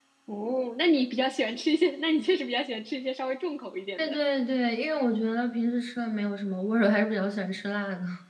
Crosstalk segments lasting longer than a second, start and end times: none

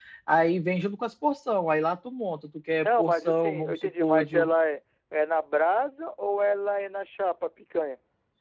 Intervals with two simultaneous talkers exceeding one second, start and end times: 2.8-4.5

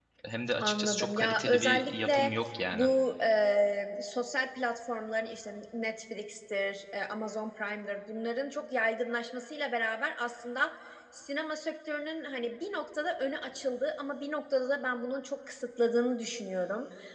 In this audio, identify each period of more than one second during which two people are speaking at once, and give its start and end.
0.6-2.3

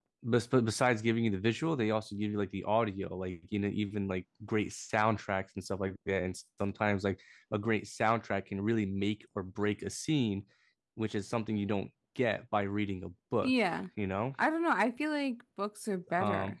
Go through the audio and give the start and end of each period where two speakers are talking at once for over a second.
none

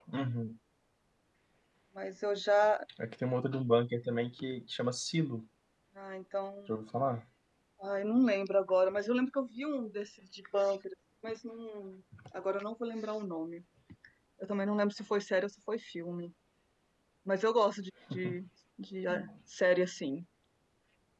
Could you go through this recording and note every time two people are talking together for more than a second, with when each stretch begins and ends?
none

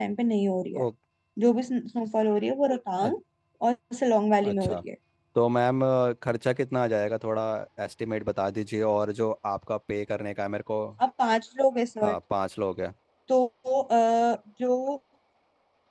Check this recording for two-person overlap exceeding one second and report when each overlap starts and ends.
none

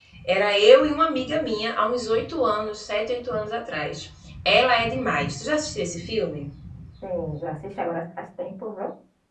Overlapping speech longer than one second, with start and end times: none

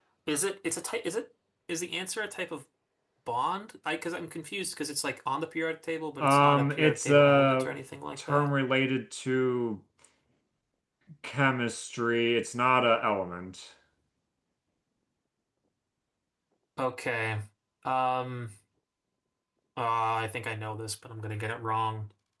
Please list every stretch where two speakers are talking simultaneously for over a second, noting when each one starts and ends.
6.2-7.7

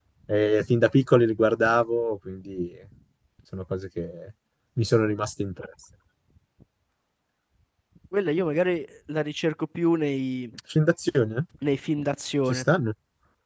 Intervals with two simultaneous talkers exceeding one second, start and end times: none

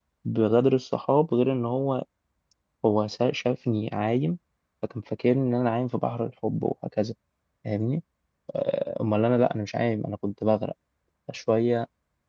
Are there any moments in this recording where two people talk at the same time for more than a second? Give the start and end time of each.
none

